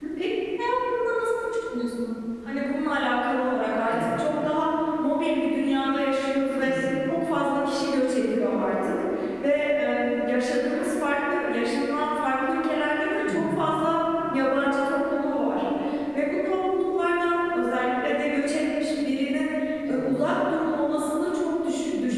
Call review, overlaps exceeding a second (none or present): none